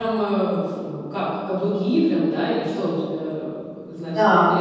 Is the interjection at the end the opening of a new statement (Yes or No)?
Yes